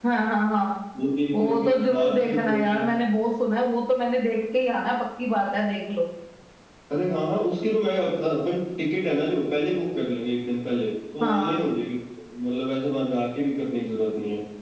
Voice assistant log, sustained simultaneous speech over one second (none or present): present